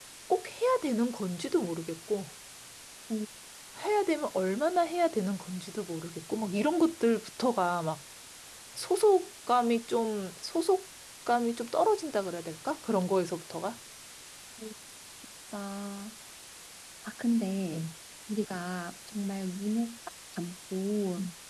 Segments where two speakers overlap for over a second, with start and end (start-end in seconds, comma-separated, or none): none